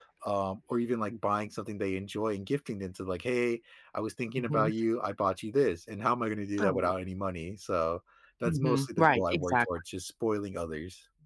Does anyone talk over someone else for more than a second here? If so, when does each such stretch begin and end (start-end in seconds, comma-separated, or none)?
8.4-9.7